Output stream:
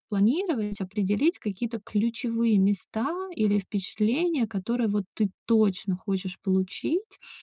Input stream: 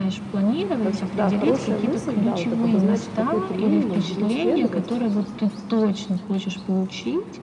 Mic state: both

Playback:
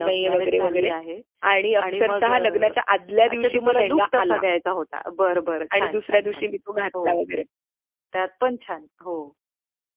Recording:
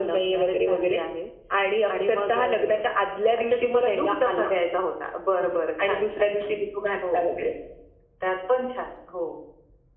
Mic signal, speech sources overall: echo only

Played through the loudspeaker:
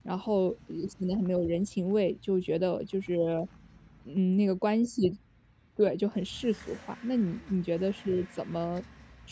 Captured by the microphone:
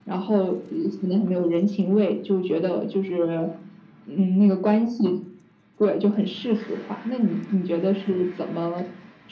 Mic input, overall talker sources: echo only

